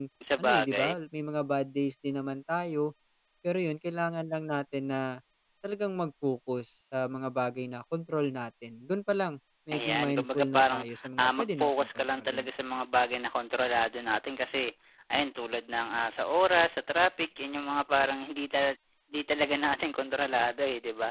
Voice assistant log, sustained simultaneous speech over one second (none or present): present